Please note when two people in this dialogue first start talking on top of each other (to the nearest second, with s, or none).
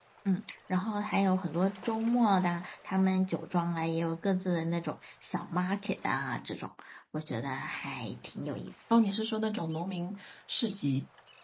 none